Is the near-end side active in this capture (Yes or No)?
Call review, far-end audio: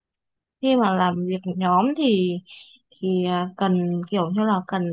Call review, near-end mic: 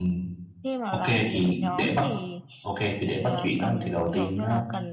Yes